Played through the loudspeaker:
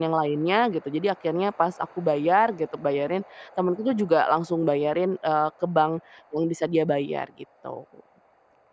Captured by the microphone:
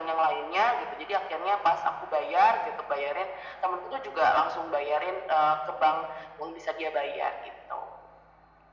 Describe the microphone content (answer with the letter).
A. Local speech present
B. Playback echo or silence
B